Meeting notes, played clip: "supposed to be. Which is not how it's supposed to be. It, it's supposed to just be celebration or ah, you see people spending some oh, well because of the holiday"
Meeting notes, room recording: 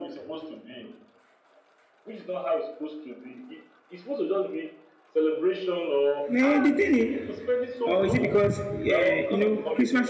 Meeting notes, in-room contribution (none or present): present